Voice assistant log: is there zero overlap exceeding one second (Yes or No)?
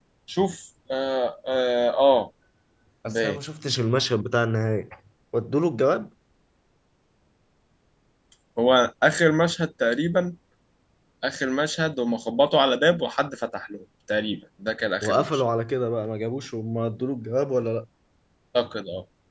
Yes